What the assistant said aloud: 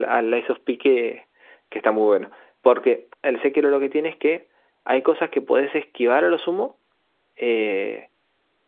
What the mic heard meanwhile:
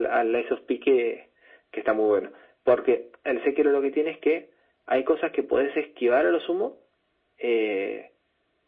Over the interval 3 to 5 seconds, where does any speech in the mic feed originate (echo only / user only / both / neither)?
echo only